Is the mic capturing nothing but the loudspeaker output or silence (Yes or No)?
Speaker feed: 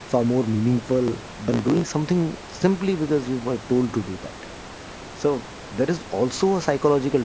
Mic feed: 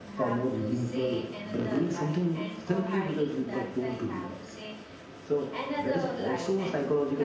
No